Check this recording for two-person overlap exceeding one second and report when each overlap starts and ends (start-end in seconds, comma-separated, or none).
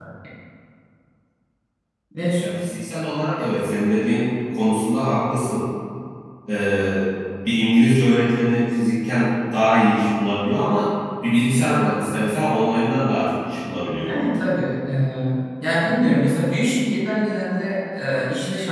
none